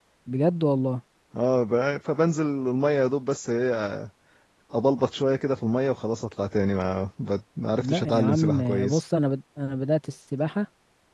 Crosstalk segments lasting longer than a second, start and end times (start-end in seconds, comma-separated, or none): 7.8-9.0